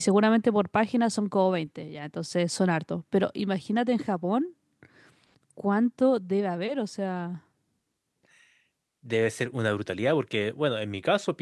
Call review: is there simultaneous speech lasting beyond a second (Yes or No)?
No